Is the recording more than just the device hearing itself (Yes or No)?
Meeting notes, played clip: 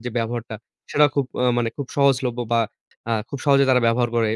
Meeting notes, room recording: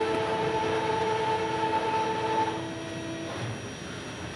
No